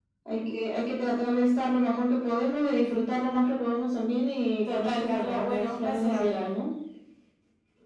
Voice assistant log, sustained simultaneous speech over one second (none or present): present